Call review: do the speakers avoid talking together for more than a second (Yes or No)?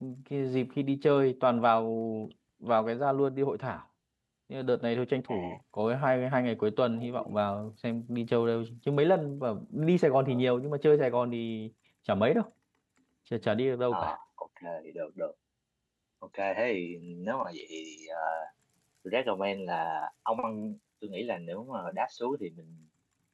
Yes